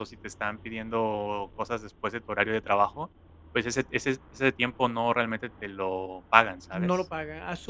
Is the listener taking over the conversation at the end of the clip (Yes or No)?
Yes